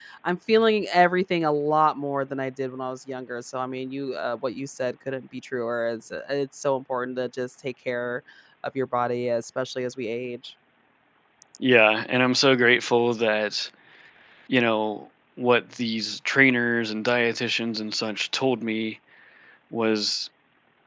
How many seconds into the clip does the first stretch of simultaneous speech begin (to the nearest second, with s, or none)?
none